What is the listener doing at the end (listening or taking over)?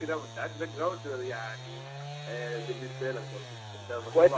taking over